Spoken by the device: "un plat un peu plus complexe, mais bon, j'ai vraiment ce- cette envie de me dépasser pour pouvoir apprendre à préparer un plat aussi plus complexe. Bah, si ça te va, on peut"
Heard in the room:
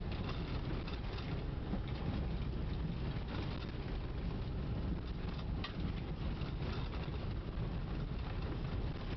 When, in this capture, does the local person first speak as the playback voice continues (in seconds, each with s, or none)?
none